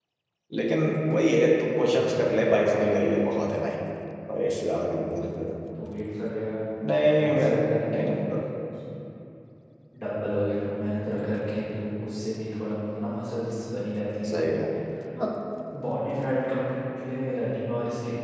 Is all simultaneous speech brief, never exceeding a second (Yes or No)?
No